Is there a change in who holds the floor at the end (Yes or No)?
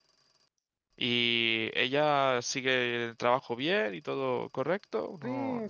Yes